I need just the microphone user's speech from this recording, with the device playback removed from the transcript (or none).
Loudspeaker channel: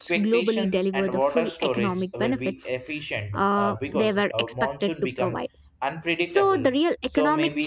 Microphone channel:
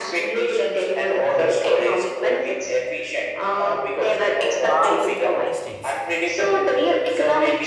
past mistakes